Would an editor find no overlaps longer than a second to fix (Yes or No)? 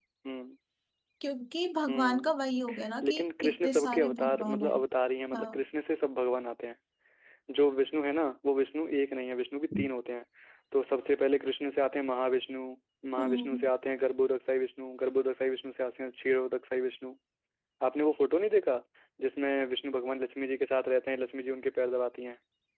No